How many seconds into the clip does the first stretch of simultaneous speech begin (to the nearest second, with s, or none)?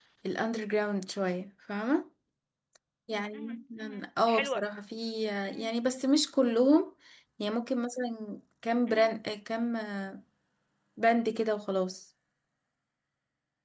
3 s